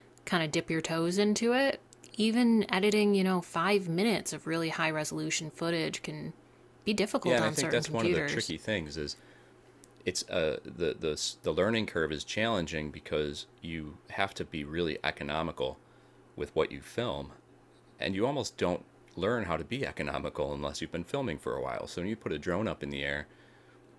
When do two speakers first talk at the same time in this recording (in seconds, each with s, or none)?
7.2 s